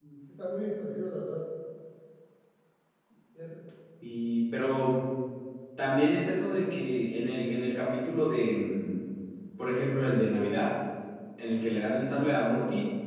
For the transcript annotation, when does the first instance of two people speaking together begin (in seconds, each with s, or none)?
none